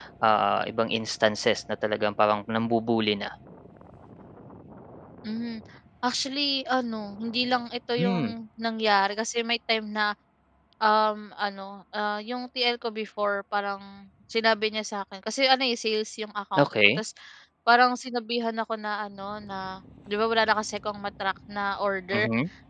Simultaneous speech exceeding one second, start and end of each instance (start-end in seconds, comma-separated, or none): none